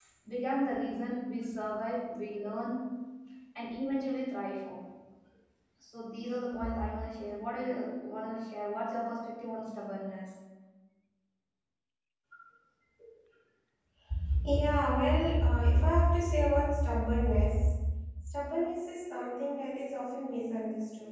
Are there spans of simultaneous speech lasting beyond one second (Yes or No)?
No